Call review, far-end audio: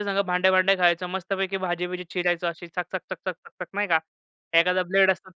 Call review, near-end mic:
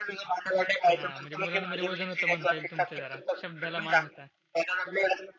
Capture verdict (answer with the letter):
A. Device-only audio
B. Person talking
B